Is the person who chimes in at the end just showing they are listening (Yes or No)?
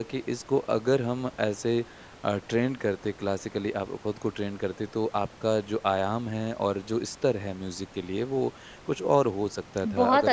No